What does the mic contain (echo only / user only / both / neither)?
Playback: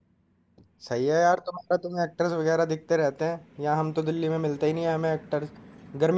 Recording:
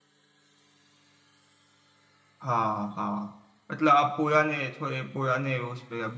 user only